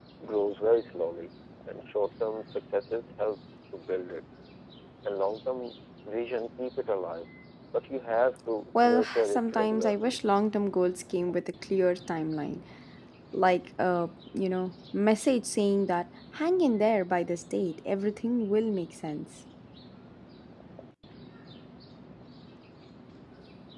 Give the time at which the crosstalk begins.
8.8 s

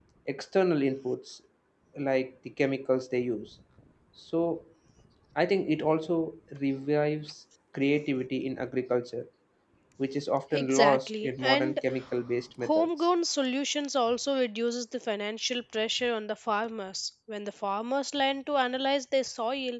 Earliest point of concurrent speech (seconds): 10.5 s

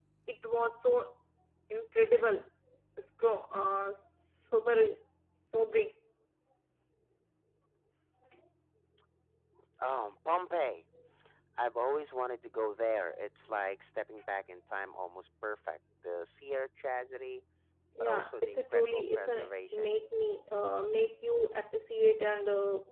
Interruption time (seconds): 18.1 s

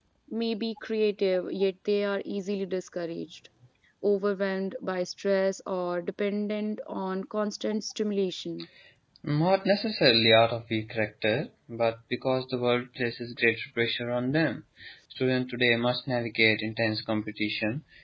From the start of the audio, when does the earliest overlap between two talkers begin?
none

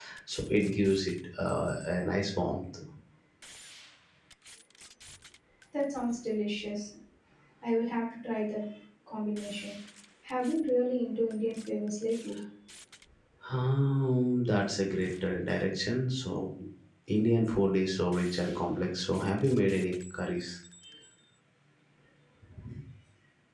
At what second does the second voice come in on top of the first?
none

